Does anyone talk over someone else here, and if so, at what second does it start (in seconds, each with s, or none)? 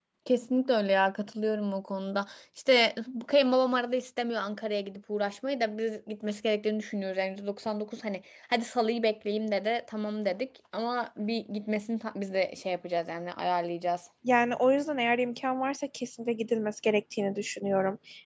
none